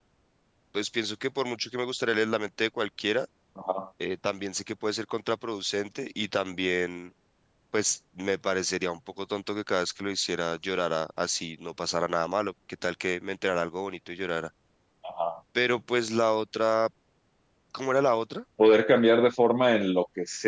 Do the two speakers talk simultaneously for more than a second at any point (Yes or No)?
No